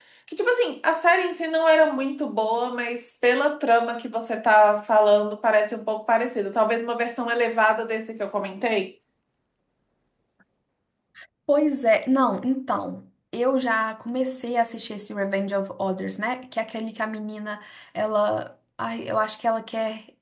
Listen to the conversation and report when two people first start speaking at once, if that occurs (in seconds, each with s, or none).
none